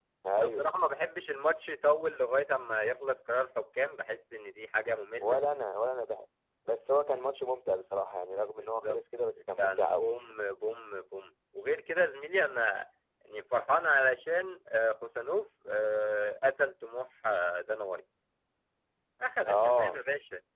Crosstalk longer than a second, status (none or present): none